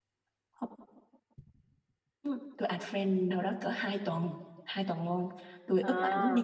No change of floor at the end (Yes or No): Yes